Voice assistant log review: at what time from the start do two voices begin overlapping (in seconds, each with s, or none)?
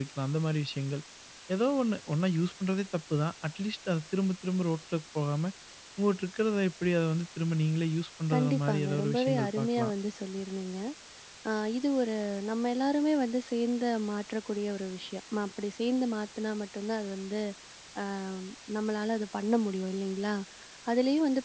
8.3 s